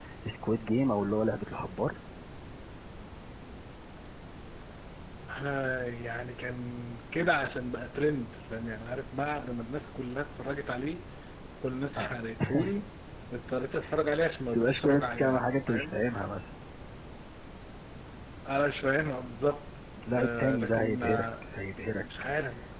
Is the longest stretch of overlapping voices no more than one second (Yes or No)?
No